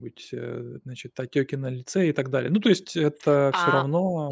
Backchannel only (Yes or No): No